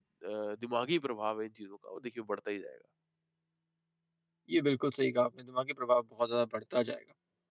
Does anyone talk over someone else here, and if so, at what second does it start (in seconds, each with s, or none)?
none